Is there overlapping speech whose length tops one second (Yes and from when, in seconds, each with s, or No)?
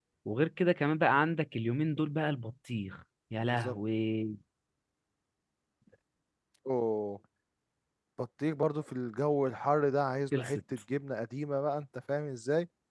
No